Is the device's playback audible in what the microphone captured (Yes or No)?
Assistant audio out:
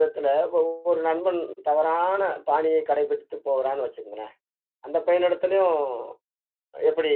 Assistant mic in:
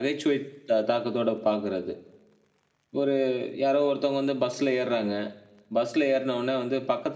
No